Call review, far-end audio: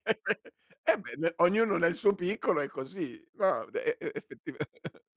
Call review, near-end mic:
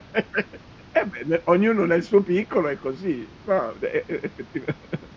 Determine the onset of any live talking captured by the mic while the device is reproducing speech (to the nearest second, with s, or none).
none